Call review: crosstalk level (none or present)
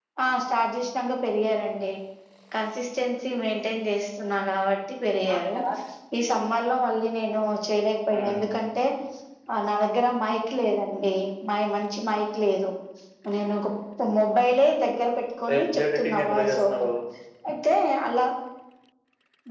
present